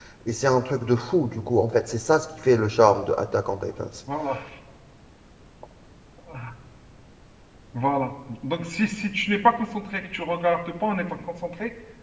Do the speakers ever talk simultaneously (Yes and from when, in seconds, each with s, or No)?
No